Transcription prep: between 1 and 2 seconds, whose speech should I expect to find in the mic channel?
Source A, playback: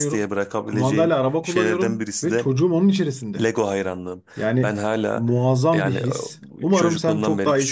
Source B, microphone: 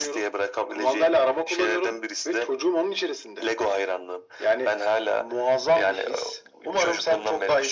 echo only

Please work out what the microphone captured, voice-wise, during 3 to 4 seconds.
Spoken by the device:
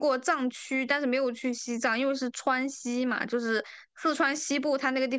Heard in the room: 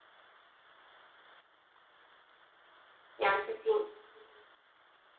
user only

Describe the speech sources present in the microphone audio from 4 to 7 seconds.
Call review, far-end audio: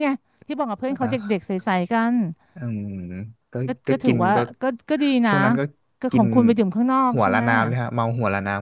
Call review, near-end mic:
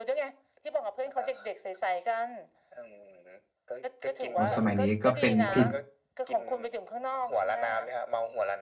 both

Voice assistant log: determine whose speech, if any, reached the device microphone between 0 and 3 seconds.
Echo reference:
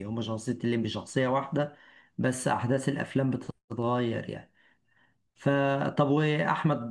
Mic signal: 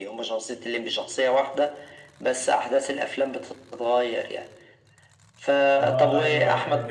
echo only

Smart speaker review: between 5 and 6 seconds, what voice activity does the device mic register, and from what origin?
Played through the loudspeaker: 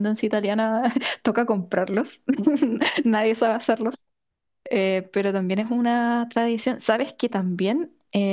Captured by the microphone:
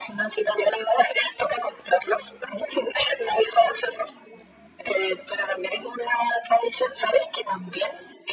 echo only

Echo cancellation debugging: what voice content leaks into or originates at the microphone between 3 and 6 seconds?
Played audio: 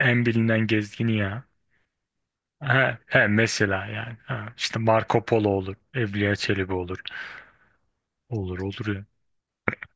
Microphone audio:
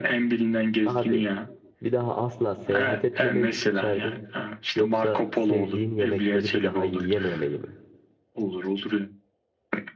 both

